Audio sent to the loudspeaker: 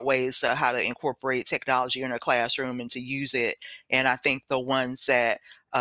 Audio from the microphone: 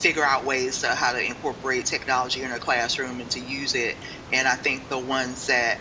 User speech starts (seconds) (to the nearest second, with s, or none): none